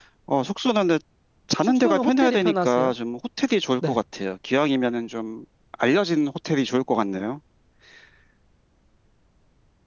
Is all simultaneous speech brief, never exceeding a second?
No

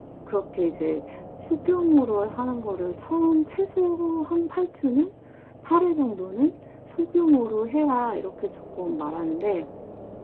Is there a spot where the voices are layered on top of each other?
No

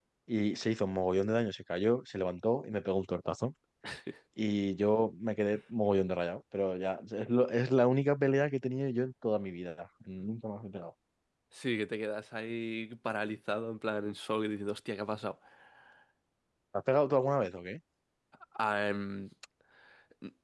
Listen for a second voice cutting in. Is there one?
No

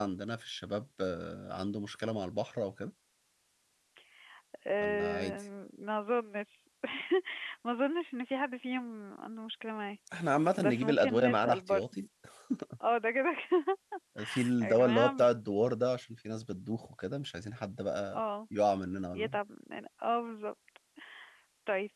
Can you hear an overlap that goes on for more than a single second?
Yes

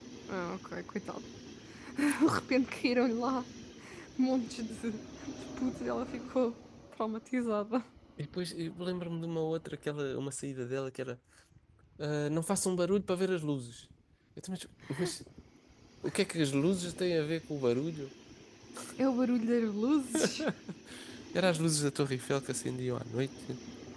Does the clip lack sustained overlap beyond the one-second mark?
Yes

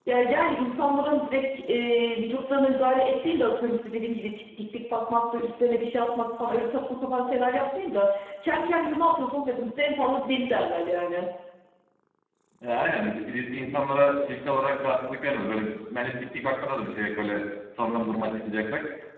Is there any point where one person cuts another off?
No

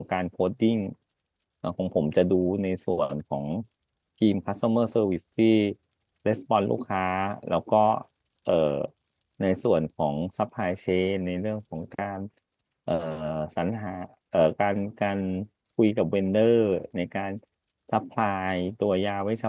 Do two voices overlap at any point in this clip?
No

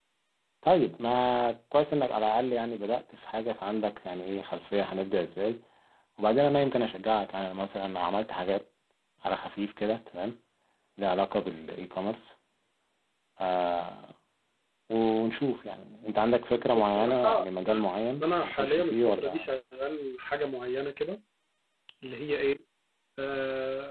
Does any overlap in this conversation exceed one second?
Yes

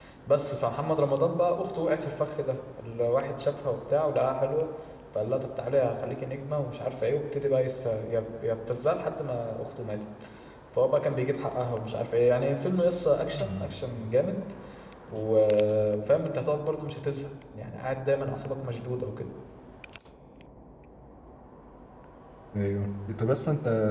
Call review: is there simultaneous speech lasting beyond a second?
No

